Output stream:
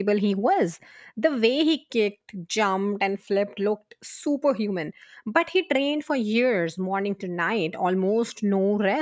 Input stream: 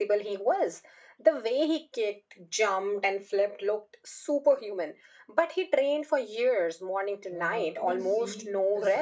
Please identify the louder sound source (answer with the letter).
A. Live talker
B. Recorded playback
B